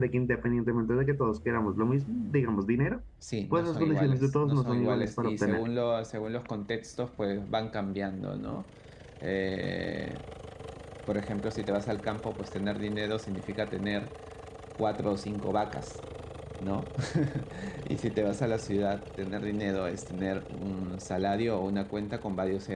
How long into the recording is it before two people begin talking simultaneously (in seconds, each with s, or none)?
3.5 s